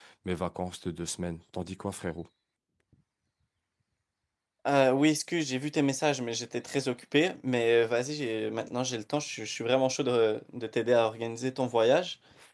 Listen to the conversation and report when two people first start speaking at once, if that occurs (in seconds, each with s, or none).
none